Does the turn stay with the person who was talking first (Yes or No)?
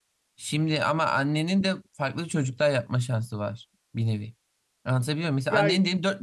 Yes